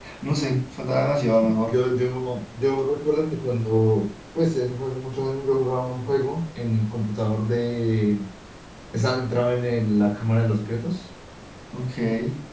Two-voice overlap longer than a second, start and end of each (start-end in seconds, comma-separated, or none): none